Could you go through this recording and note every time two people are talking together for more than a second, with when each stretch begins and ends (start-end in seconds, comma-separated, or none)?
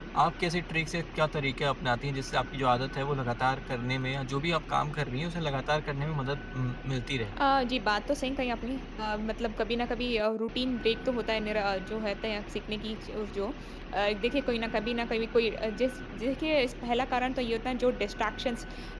none